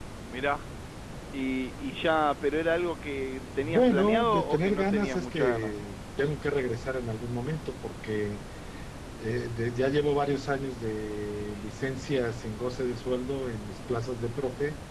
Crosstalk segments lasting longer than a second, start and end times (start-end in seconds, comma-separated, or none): 3.5-5.8